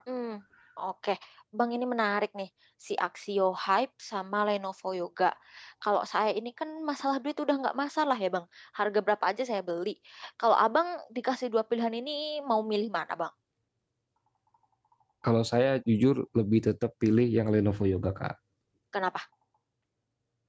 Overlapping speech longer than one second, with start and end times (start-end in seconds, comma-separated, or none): none